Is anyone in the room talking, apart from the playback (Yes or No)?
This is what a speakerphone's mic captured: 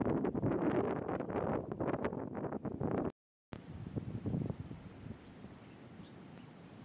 No